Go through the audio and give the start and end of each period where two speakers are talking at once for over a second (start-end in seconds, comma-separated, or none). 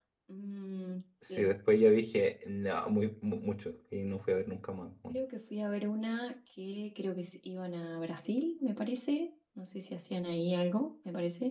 none